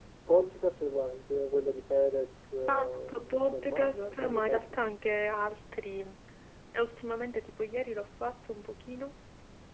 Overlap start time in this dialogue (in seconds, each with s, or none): 2.7 s